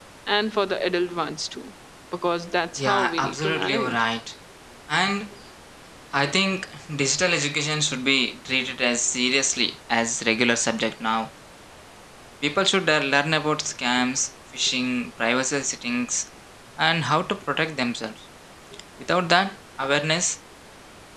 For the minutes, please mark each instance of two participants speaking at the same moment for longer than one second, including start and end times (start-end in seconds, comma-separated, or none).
2.8-4.0